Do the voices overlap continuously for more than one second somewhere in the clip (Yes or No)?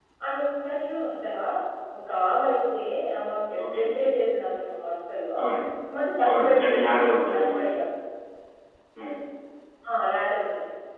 Yes